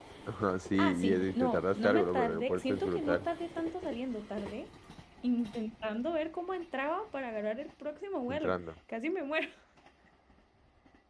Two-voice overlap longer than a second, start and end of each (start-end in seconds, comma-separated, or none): 0.8-3.3